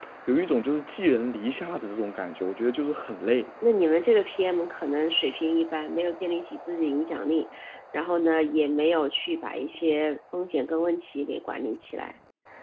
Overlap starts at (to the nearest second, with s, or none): none